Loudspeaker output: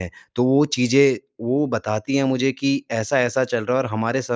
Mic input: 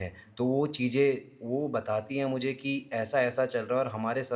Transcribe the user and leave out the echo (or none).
none